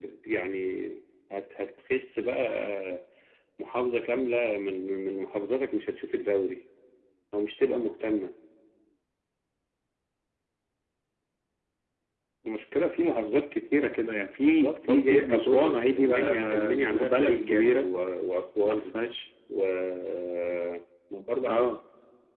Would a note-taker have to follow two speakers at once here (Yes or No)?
Yes